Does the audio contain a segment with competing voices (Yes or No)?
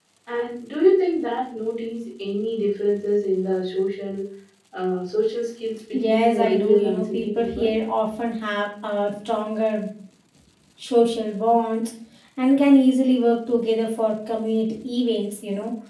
Yes